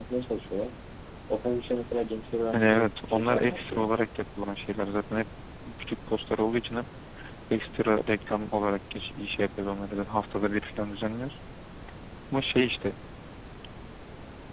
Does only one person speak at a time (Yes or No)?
No